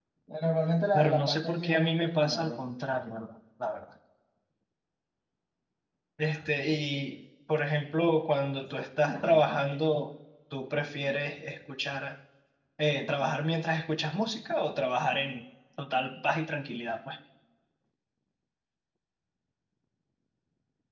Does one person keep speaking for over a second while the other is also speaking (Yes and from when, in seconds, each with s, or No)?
Yes, from 0.9 s